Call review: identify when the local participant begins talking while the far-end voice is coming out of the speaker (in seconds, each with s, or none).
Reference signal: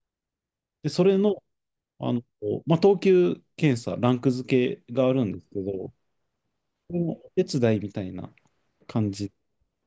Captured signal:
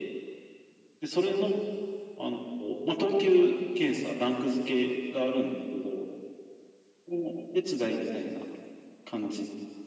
none